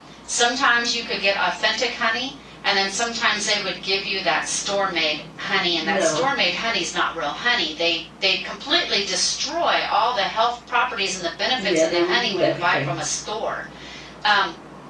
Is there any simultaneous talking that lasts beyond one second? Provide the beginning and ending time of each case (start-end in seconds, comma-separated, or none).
11.6-13.0